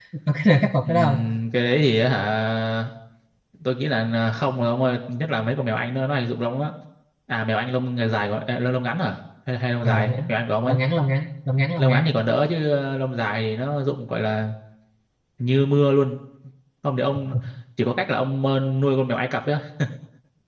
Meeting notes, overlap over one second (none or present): none